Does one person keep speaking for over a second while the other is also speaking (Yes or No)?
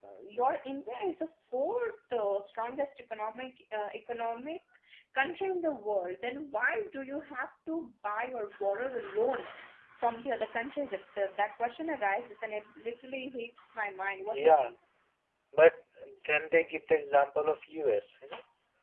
No